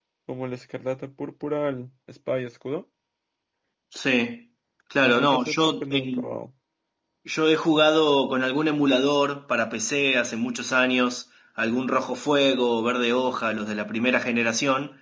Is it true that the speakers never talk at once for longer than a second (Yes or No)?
No